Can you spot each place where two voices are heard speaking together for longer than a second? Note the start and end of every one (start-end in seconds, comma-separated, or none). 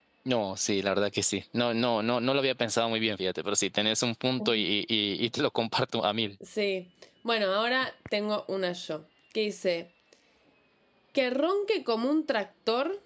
none